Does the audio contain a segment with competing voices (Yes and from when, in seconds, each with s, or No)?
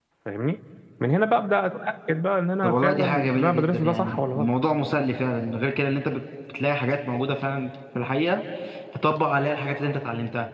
Yes, from 2.6 s